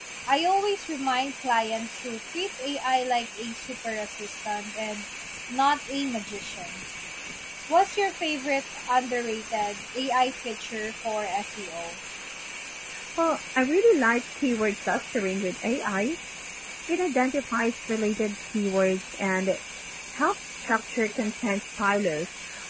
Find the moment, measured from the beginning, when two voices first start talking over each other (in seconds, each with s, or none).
none